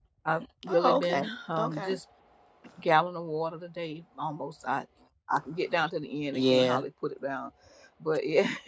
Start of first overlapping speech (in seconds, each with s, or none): 0.7 s